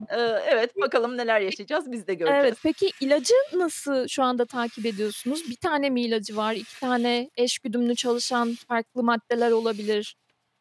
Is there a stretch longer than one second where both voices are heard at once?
No

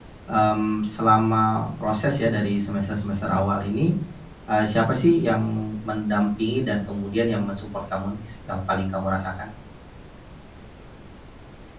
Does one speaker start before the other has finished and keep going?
No

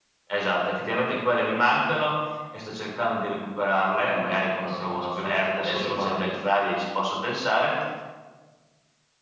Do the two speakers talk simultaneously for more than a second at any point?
Yes, from 4.2 s

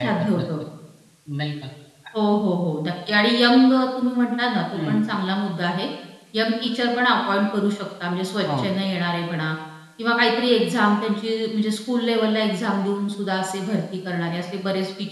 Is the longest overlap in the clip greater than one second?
No

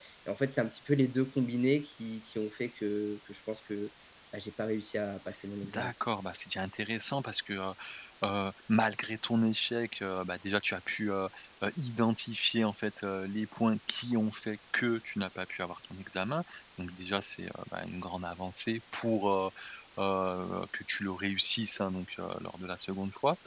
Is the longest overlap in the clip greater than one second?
No

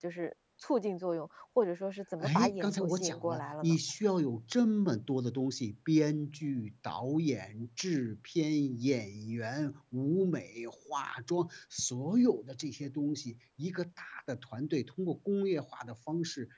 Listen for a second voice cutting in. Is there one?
Yes, from 2.2 s

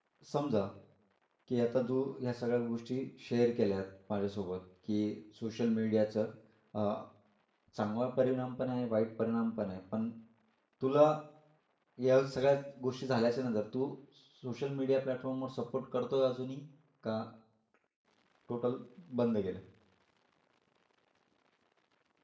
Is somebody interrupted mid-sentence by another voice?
No

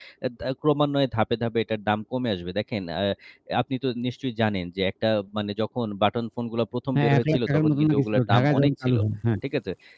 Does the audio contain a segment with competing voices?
Yes, from 7.0 s

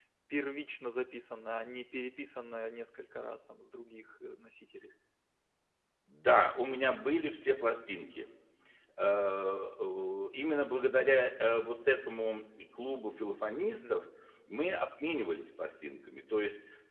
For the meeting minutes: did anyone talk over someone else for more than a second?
No

